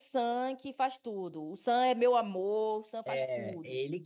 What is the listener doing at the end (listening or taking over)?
taking over